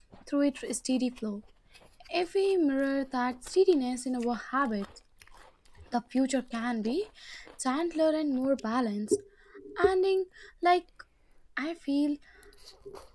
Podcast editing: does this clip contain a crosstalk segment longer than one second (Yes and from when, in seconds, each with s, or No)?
No